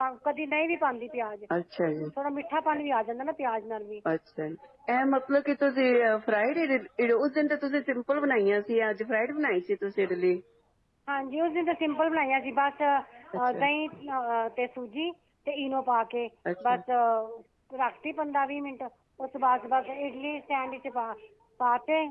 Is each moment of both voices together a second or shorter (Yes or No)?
Yes